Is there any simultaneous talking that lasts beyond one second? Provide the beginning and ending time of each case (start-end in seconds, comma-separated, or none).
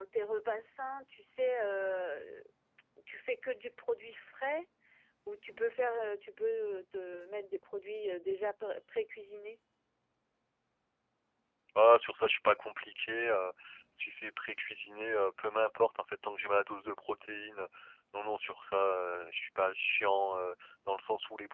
none